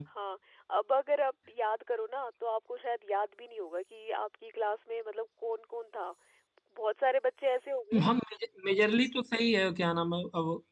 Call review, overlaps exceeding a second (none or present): none